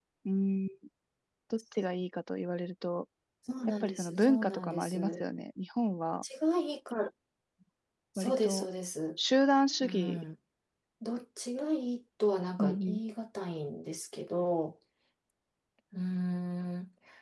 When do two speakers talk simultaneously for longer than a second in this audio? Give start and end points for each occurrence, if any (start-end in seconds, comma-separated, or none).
3.8-5.2